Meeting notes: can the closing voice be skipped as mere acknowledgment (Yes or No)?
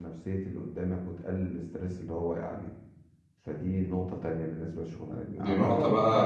No